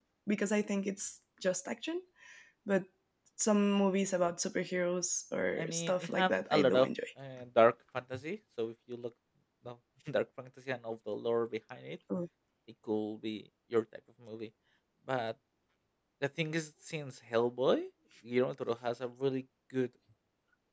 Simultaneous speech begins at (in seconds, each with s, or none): 5.6 s